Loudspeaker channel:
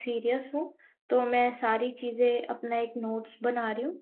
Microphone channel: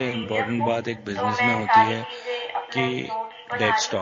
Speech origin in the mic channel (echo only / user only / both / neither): both